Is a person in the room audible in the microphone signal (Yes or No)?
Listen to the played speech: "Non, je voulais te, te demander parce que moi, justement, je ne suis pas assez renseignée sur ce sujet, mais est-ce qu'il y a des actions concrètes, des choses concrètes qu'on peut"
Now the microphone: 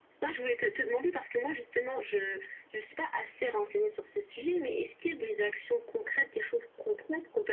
No